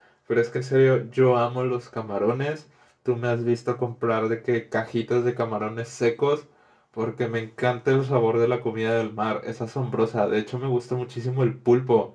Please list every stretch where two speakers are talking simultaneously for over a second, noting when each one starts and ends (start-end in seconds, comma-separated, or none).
none